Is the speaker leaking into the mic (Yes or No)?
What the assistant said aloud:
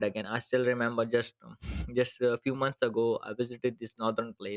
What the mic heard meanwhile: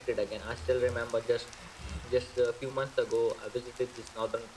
Yes